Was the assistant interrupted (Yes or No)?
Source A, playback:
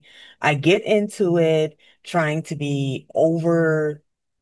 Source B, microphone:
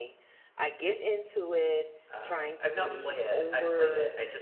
Yes